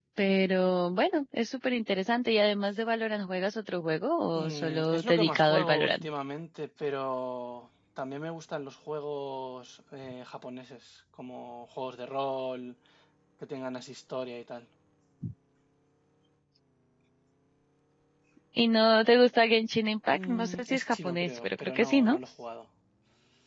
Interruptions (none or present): present